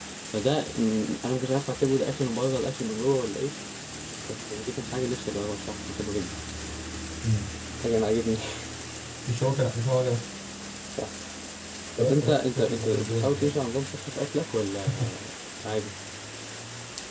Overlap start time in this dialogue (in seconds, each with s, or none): 12.0 s